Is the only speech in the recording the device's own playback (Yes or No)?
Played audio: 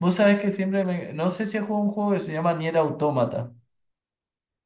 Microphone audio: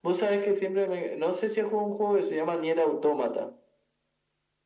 Yes